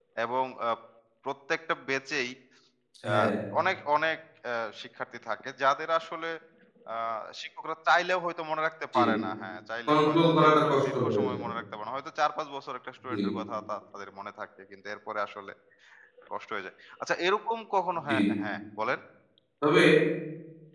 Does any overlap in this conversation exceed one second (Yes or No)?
Yes